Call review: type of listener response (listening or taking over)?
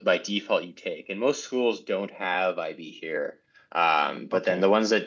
listening